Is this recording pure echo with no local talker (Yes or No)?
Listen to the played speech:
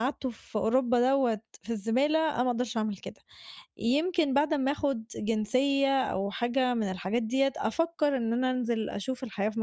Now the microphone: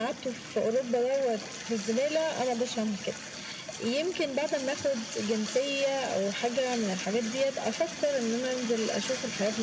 Yes